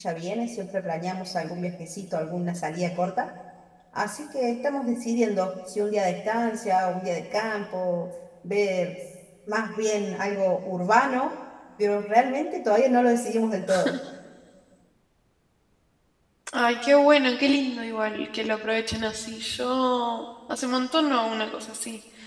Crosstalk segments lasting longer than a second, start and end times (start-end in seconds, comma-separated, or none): none